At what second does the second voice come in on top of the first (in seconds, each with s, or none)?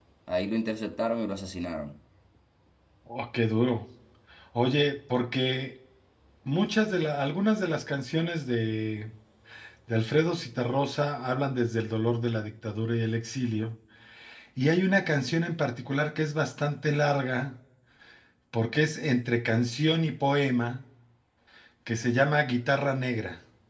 none